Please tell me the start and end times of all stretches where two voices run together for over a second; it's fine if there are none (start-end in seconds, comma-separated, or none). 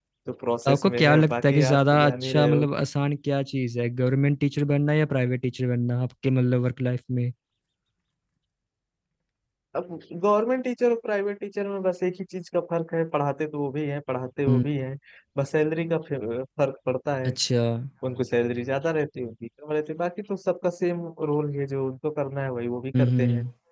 0.7-2.6